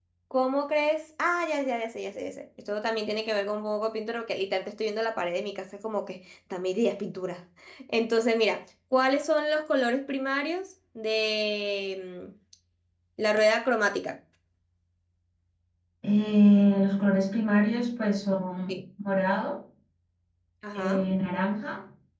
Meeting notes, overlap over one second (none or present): none